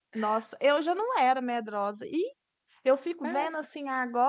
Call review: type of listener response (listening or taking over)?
listening